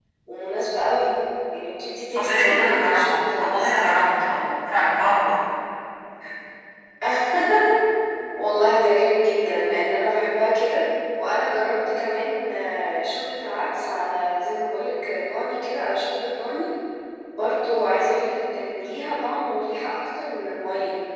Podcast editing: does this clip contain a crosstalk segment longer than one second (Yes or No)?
Yes